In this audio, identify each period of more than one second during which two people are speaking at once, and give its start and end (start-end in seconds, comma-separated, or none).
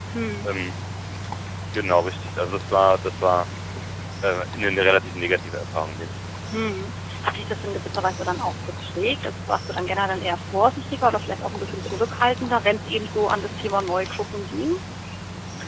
none